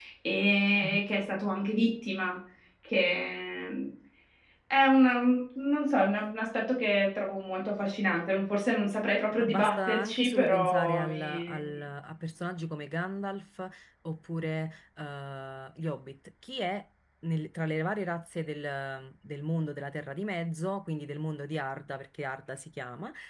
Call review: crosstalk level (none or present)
present